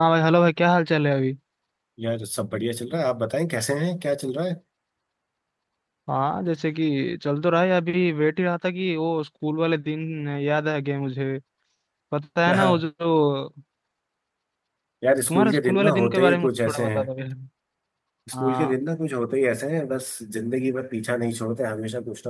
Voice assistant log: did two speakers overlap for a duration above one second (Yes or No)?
Yes